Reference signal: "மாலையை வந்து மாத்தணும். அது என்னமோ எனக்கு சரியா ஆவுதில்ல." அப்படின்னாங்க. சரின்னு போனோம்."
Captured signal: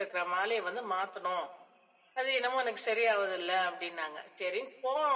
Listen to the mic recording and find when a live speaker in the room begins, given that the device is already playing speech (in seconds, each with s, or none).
none